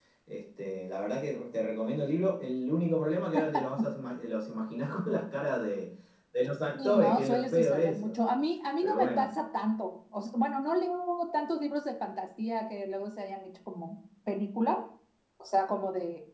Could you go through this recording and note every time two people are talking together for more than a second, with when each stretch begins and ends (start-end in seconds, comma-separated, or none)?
6.7-8.2